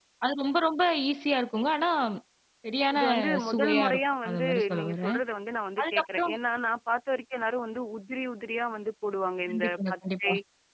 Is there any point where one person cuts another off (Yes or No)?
Yes